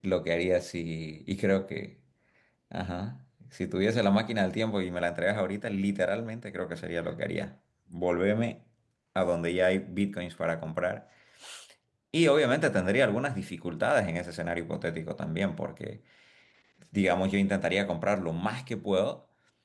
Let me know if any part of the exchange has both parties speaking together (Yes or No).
No